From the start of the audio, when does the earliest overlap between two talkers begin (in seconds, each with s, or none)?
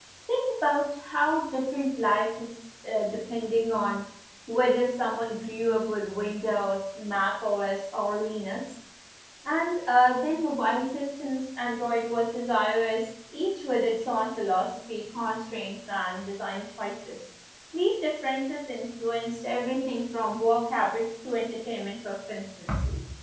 none